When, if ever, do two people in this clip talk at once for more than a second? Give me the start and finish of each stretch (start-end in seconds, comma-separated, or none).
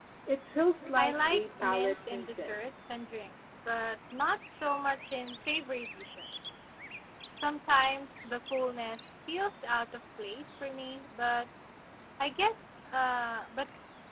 1.0-2.6